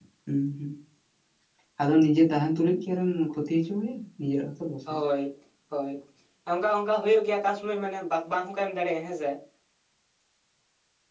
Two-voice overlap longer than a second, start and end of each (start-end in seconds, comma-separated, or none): none